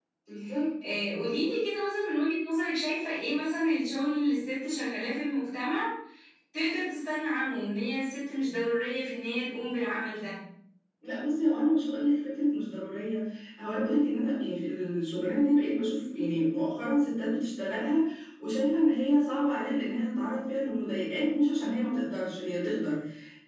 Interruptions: none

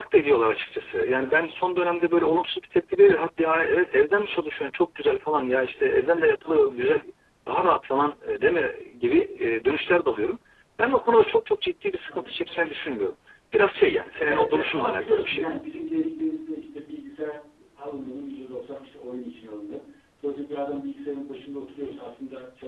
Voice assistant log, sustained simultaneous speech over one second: present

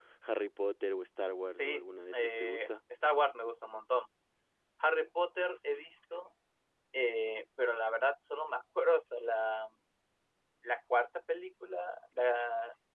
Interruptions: present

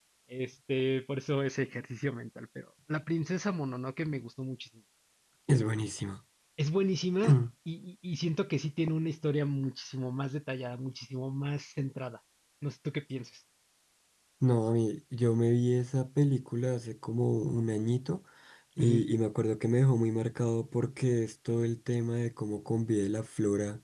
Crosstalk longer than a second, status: none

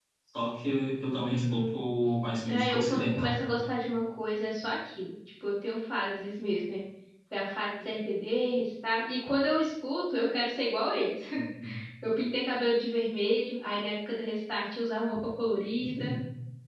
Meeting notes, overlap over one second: present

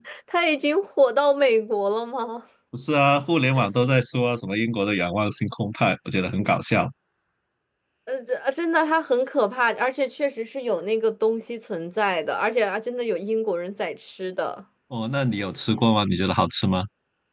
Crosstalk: none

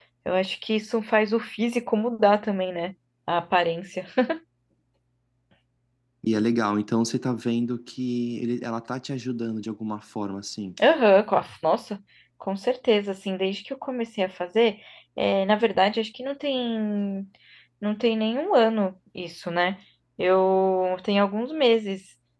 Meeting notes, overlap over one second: none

